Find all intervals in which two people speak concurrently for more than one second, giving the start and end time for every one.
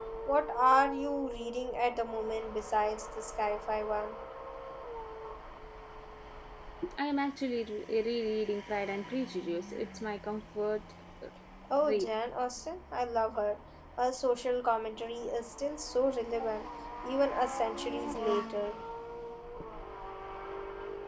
none

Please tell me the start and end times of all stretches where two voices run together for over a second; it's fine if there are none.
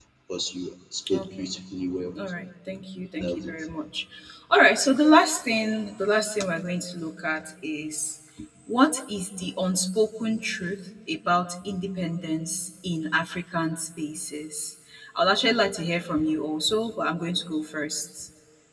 none

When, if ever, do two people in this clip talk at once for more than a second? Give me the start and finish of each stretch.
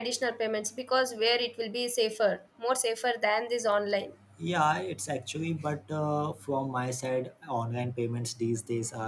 none

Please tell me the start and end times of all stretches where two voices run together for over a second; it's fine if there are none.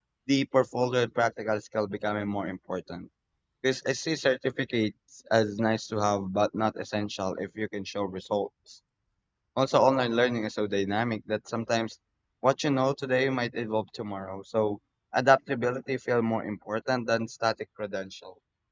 none

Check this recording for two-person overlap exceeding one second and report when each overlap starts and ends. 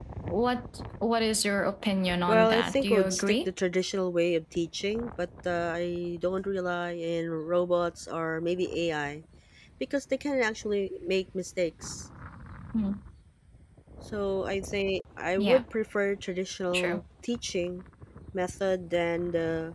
2.3-3.5

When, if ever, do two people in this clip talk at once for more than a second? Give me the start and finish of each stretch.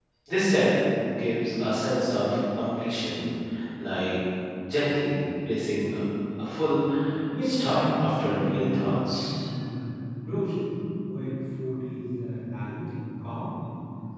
7.4-9.3

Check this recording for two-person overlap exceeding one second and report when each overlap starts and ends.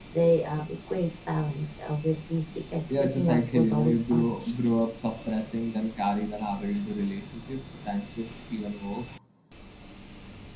2.9-4.5

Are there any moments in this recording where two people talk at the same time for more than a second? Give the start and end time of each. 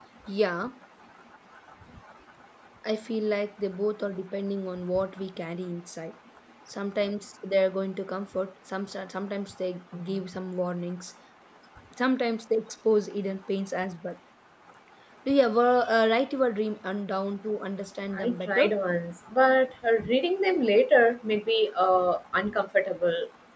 none

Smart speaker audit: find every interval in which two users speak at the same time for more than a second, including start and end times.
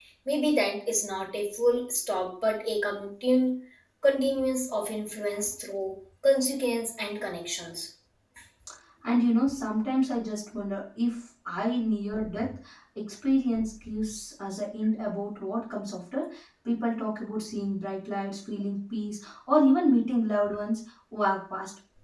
none

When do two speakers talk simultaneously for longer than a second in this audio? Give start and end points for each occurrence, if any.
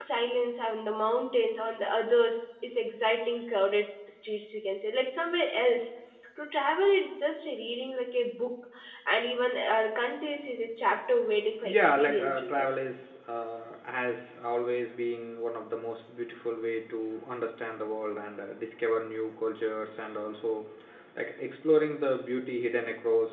11.6-12.9

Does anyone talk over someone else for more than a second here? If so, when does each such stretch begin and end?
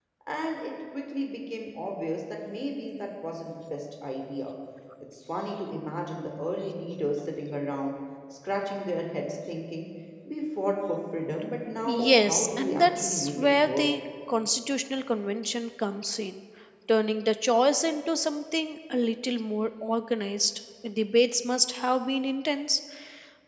11.9-13.8

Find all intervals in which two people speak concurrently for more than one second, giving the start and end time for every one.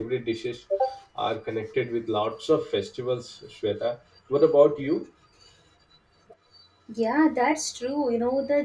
none

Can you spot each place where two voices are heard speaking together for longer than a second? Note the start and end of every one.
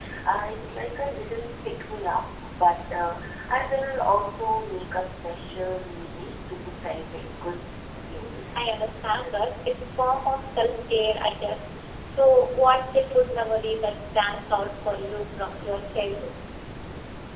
none

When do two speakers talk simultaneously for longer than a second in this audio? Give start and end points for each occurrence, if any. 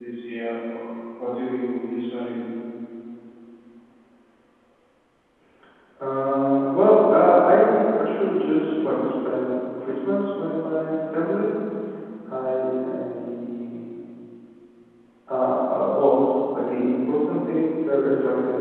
none

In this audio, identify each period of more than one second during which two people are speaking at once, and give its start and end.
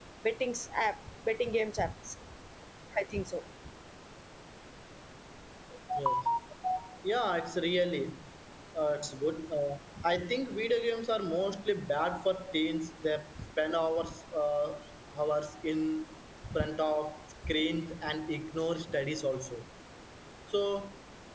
none

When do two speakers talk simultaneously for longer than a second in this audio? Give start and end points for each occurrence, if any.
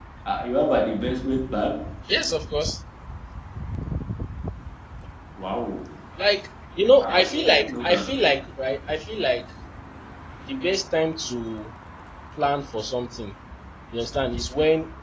7.0-8.3

